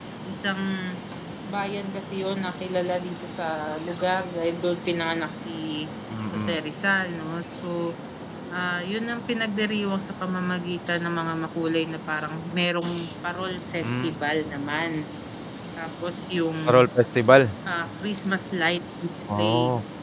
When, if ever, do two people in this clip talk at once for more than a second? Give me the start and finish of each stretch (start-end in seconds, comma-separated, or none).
none